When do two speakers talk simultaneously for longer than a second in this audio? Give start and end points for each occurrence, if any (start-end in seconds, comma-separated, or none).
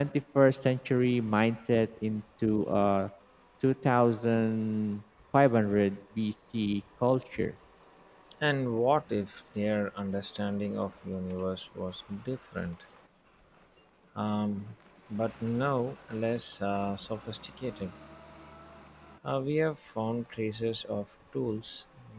none